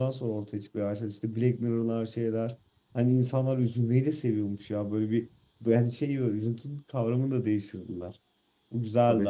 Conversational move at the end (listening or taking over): listening